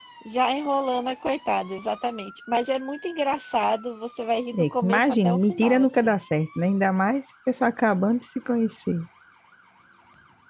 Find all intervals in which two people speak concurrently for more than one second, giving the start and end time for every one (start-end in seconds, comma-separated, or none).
4.5-6.2